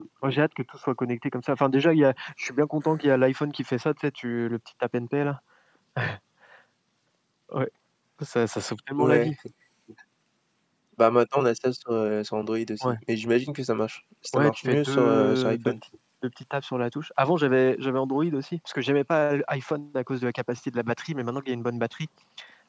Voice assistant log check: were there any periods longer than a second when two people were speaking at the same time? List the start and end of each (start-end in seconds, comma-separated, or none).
14.3-15.7